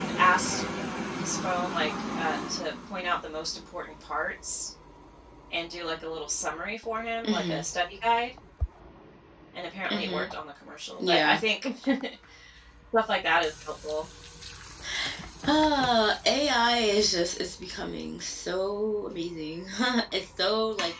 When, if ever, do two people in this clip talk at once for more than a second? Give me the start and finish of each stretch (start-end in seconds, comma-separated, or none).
none